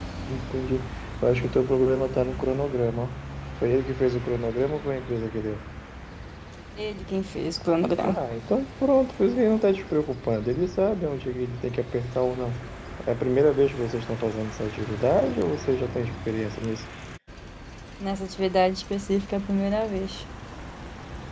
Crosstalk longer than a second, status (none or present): none